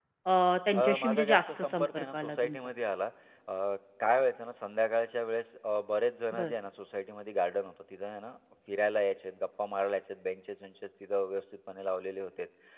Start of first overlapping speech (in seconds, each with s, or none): 0.8 s